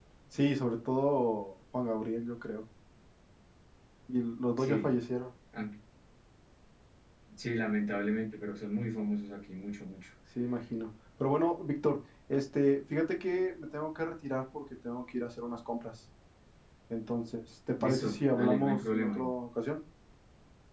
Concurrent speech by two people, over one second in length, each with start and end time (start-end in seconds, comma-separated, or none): 17.8-19.2